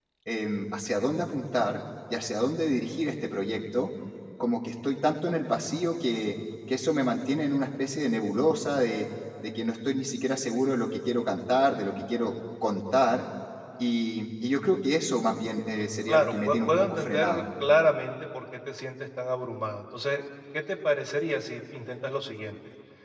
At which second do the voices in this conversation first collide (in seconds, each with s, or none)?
16.1 s